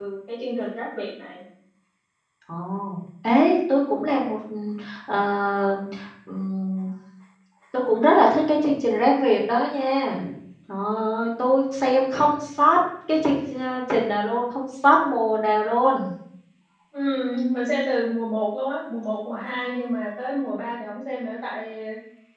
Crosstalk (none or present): none